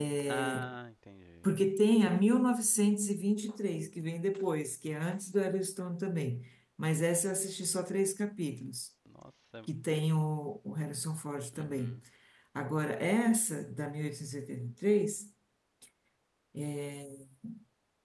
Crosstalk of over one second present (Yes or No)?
No